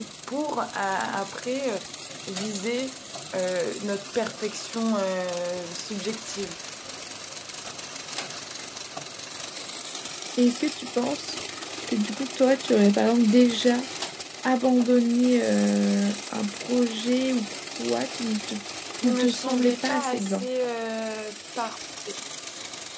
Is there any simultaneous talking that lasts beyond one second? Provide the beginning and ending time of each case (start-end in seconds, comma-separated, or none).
19.0-20.5